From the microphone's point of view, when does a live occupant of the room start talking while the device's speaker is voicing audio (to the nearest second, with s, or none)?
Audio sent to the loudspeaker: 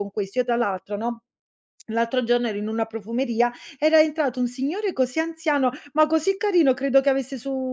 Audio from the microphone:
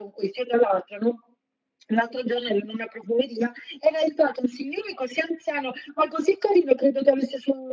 none